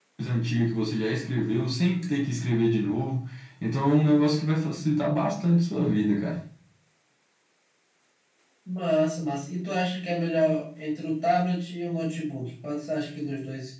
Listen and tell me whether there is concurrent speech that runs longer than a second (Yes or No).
No